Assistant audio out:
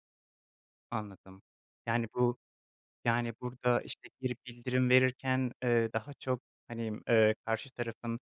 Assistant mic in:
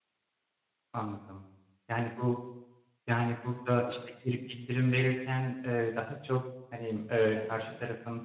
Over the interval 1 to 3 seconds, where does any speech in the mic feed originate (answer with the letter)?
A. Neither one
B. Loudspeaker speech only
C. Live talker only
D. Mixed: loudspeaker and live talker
B